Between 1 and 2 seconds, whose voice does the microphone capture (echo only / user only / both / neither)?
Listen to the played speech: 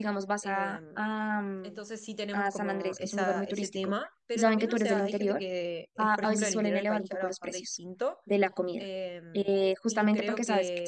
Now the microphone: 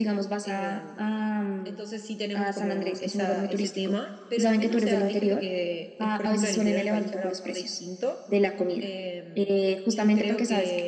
echo only